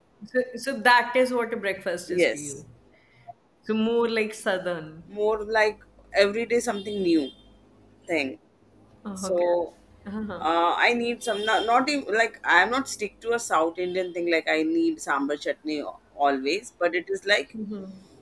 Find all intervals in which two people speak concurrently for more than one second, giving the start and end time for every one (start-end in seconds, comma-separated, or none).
none